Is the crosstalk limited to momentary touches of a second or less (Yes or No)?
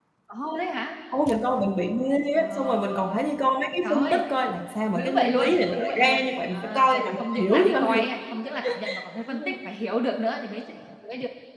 No